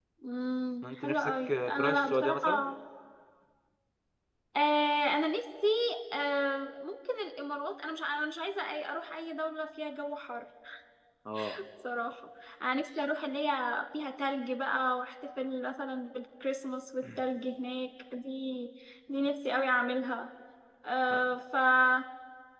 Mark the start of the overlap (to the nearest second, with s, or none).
1 s